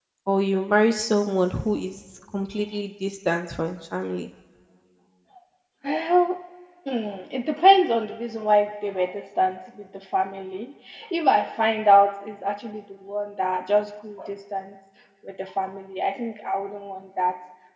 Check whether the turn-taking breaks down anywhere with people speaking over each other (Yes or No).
No